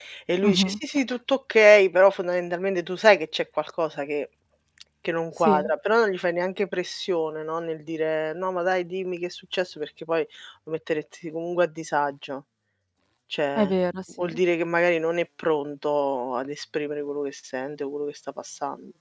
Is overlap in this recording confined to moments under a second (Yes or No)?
Yes